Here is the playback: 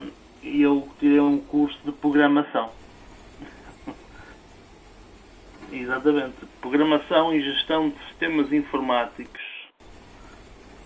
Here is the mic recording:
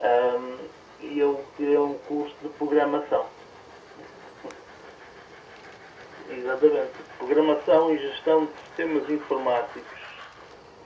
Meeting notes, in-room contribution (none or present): none